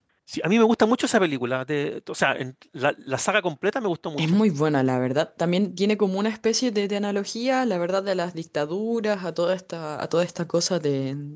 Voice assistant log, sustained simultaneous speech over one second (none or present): none